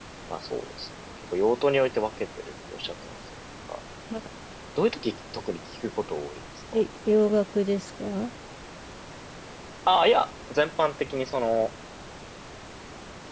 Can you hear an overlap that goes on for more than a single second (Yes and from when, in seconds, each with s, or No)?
No